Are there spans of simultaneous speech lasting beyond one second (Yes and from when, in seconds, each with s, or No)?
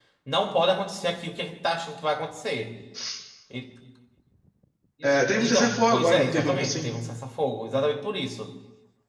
Yes, from 5.0 s